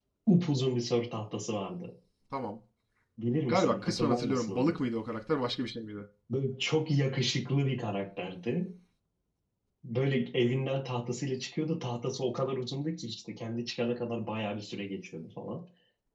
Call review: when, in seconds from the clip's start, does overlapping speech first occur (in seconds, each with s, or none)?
3.5 s